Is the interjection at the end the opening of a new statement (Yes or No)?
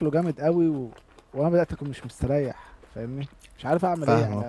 Yes